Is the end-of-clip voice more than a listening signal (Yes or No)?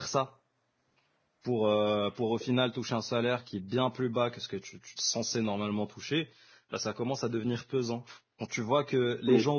No